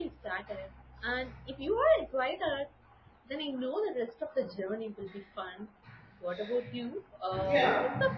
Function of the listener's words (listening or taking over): listening